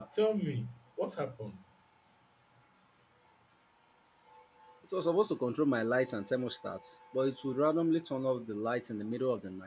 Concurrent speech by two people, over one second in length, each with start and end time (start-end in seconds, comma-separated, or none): none